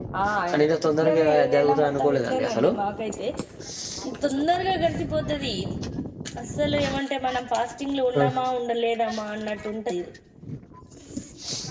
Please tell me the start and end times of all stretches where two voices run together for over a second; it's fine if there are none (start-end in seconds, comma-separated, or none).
0.9-2.7